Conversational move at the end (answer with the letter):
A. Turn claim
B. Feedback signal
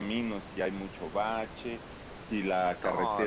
B